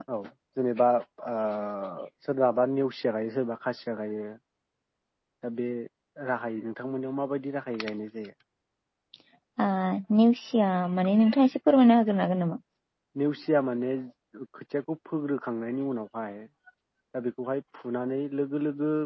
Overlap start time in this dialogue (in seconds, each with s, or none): none